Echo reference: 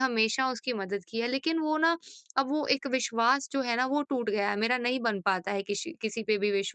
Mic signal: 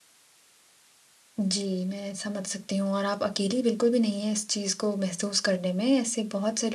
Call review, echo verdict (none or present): none